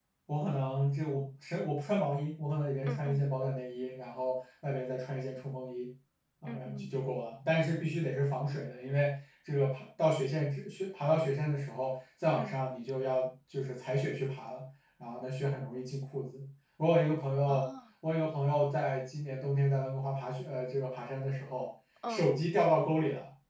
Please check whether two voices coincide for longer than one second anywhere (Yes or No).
No